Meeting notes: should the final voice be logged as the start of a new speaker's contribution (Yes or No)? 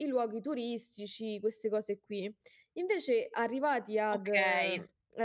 Yes